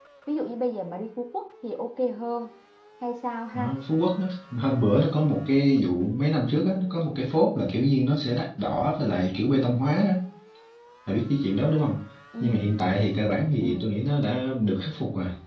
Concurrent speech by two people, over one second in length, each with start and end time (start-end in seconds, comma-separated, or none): none